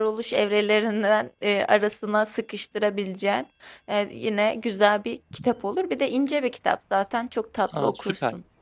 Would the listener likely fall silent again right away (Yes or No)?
No